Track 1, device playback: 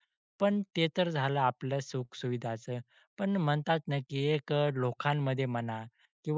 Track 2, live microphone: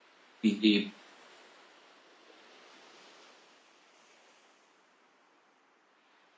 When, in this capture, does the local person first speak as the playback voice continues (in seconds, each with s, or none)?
0.4 s